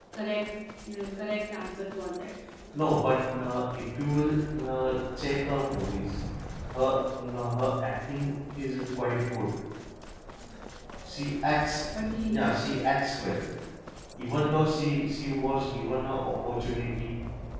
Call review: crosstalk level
none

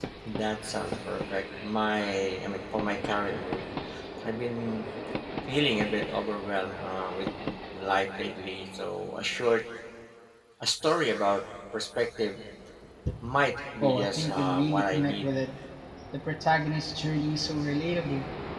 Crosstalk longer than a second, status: present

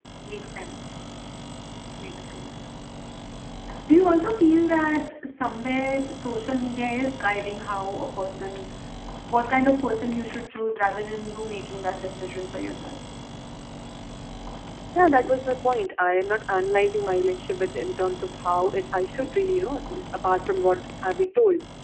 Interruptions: none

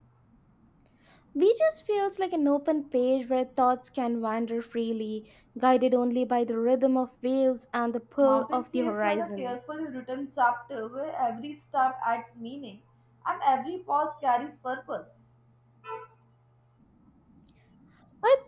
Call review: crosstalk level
present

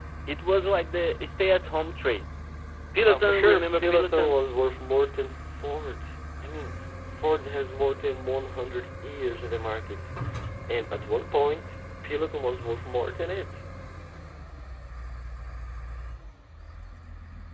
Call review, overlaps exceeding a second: present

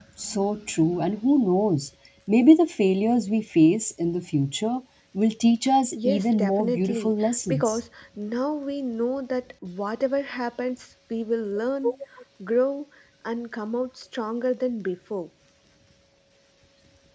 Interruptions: present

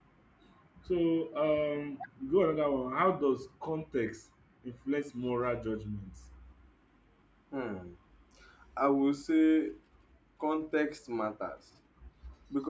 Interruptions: none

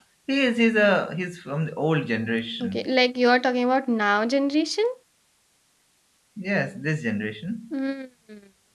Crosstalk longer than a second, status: none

